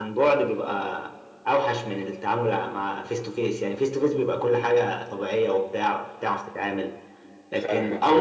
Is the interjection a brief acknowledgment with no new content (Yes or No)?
Yes